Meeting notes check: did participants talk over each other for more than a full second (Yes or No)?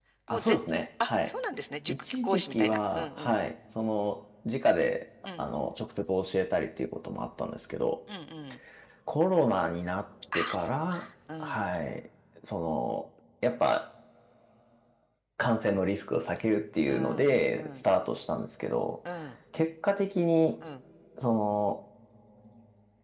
Yes